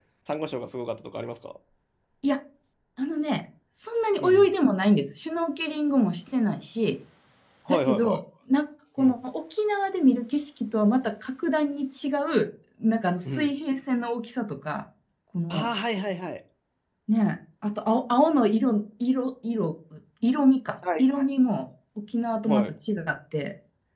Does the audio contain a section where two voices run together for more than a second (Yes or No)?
No